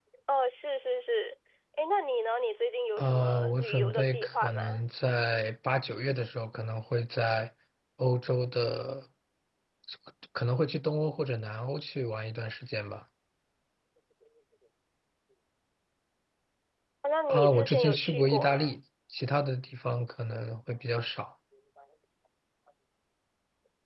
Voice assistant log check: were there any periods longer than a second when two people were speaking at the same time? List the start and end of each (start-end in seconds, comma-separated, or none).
3.0-4.6, 17.3-18.7